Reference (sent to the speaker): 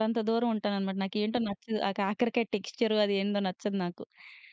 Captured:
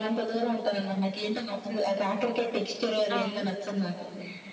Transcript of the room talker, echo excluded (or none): ఆ!